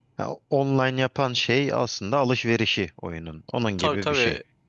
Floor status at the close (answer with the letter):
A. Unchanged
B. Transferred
B